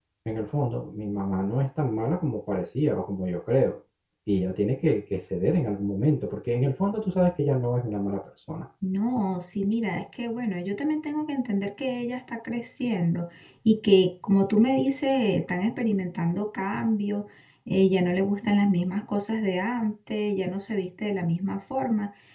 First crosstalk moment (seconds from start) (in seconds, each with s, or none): none